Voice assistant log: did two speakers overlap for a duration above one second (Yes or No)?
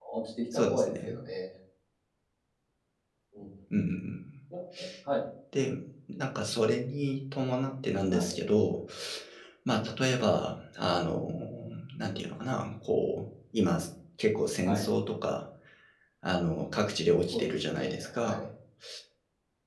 Yes